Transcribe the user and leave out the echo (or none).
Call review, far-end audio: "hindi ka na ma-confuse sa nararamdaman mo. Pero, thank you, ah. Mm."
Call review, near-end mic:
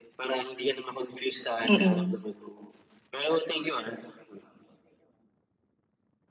Mm.